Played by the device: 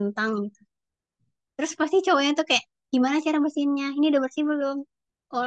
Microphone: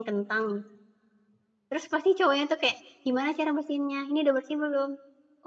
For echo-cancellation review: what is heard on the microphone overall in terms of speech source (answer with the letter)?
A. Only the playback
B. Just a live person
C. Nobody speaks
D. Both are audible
A